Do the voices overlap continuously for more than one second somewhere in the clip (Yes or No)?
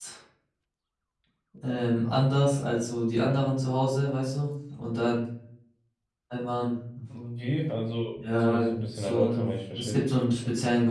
Yes